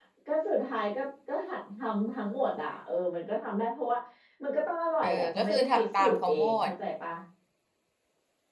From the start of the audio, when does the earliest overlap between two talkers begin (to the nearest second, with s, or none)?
5 s